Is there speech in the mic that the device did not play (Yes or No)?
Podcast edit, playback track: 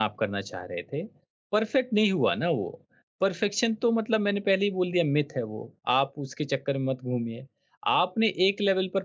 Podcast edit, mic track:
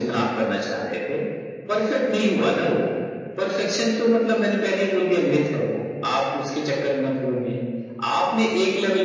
No